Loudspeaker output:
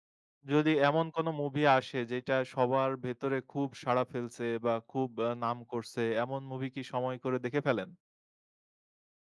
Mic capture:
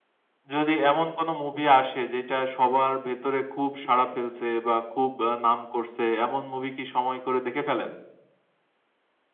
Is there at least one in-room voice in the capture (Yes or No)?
No